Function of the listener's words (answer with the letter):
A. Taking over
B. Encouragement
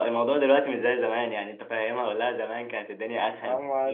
A